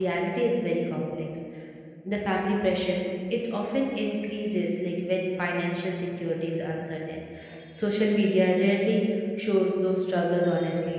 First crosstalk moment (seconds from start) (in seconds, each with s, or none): none